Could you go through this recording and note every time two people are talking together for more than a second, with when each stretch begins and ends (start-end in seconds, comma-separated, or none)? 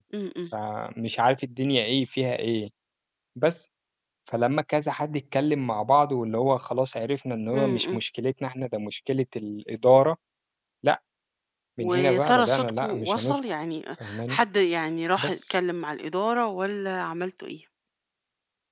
11.8-13.4